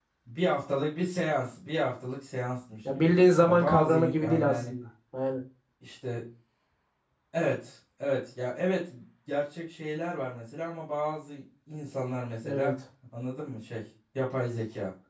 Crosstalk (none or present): present